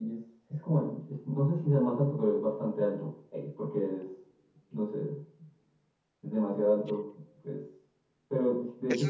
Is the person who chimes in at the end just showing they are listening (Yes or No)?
No